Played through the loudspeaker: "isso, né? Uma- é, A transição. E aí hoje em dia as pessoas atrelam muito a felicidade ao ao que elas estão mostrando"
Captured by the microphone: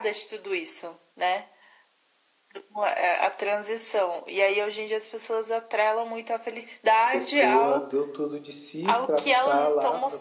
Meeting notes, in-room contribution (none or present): present